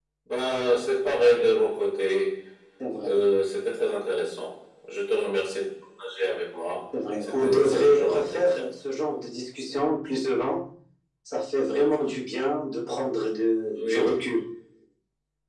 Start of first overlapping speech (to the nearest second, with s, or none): 7 s